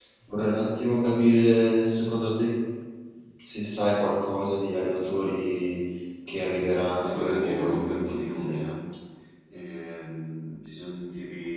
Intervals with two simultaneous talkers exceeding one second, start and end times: 7.0-8.6

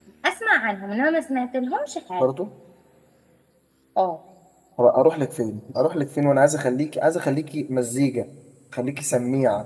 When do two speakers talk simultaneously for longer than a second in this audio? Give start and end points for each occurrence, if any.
none

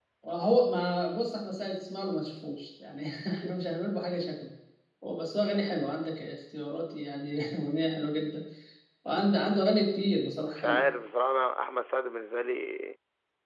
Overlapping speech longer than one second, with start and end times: none

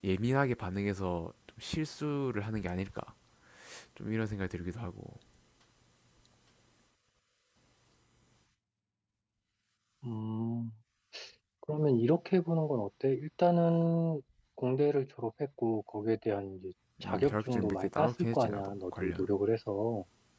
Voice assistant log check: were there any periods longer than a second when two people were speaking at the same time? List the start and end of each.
17.0-19.3

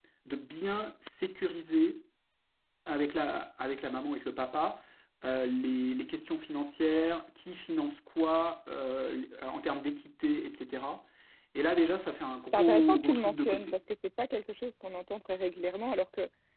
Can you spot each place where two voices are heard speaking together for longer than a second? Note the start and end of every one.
12.5-13.8

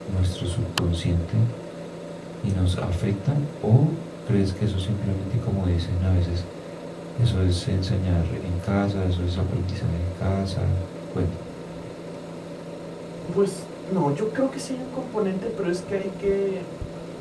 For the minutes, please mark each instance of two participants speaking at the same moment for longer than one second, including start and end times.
none

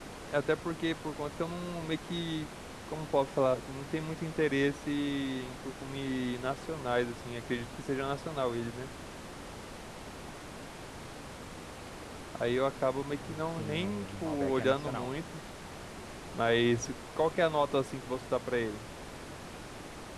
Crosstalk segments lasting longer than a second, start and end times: 13.3-15.1

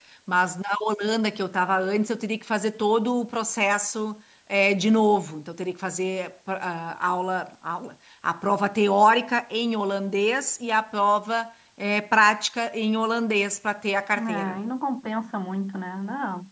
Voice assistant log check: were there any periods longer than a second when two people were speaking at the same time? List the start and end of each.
none

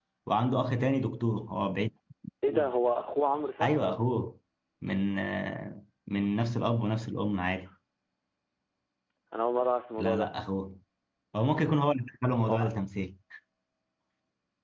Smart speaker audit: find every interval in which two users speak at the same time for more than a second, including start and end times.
none

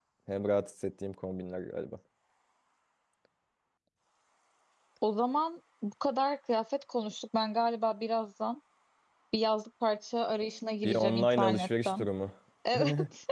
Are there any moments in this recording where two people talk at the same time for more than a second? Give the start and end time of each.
10.8-12.1

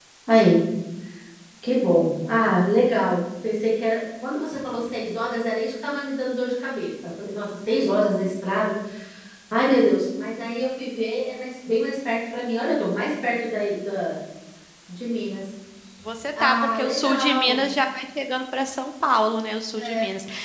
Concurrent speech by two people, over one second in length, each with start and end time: 16.4-17.7

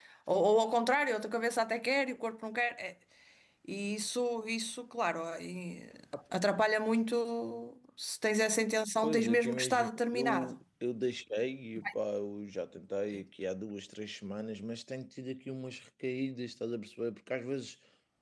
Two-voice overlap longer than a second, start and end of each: 9.0-10.6

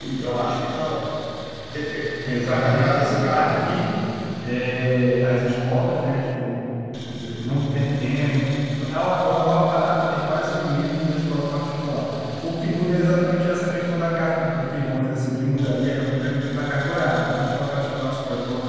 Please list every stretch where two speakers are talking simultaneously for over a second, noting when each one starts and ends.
2.5-3.9

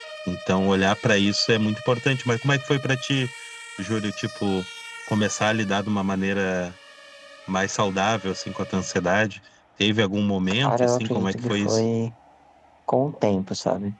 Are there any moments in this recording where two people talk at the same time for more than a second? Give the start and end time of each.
10.6-11.8

